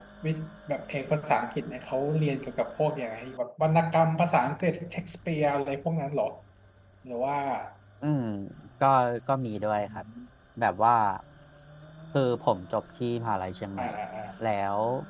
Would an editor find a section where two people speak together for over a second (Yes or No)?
No